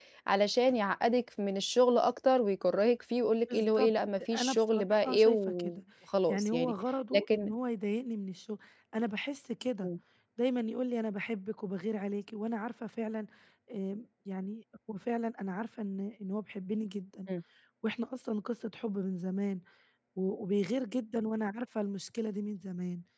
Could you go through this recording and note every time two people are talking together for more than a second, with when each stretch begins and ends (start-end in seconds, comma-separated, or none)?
4.3-5.8